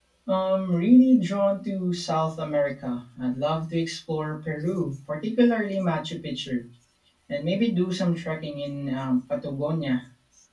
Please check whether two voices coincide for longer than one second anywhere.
No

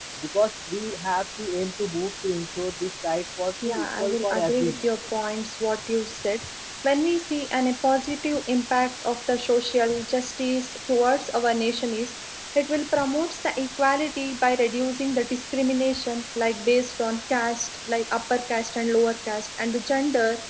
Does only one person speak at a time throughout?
No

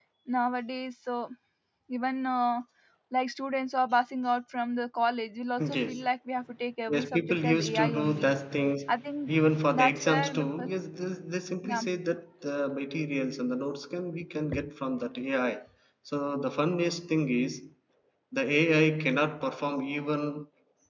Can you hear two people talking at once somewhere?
Yes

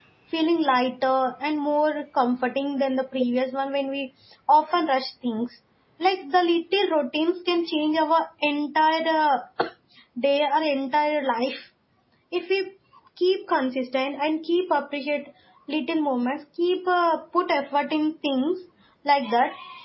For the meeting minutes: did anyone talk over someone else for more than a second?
No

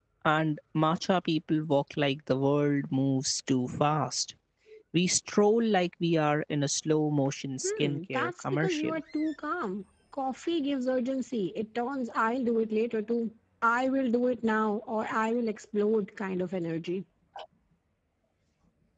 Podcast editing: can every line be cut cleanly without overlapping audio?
No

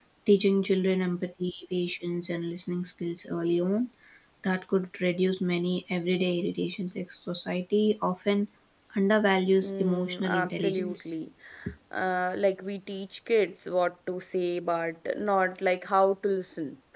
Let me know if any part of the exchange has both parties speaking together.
Yes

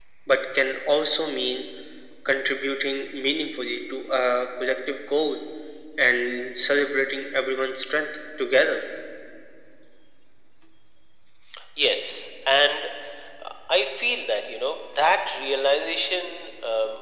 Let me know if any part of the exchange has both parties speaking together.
No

